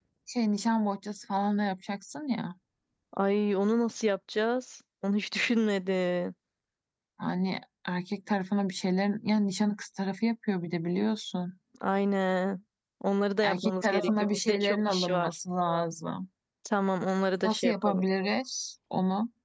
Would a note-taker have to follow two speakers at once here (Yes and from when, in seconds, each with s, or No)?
Yes, from 13.4 s